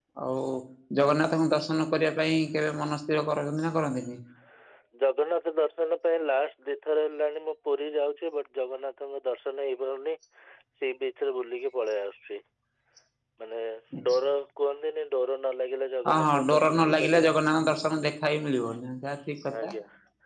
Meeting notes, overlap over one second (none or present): present